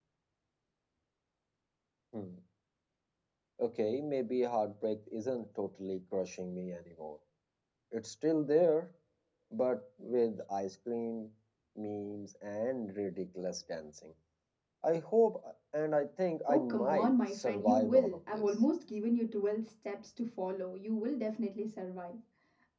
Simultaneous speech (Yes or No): Yes